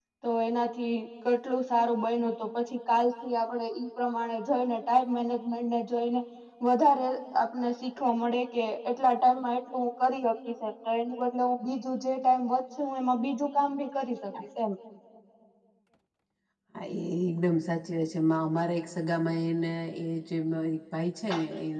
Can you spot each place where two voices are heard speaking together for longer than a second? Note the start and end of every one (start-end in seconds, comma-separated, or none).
none